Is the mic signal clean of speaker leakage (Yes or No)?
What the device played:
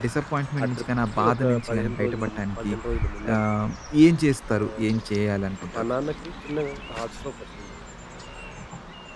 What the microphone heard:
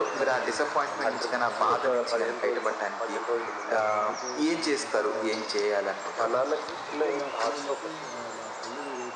No